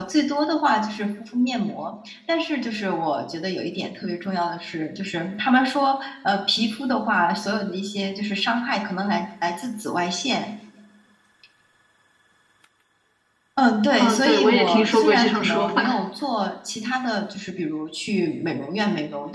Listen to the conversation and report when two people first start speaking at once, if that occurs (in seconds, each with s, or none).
14.0 s